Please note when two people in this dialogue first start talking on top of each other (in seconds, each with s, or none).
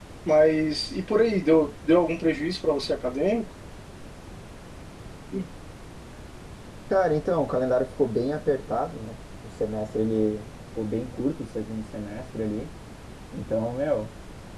none